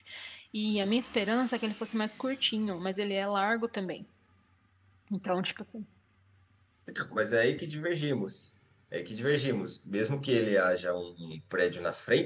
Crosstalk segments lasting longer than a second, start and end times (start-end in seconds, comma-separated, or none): none